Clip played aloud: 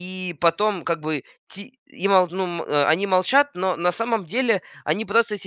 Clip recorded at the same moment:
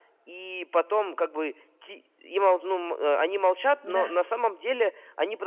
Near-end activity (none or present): present